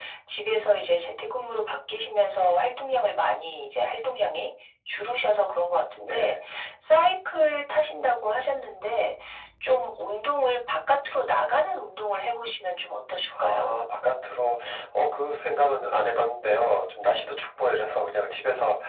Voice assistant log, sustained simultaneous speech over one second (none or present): none